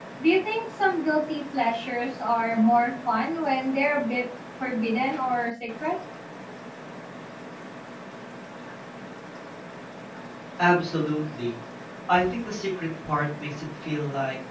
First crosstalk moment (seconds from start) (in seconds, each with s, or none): none